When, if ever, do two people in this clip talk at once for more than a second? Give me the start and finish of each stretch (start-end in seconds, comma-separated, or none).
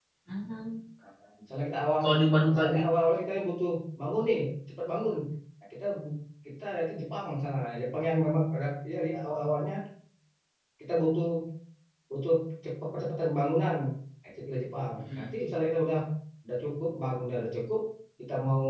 none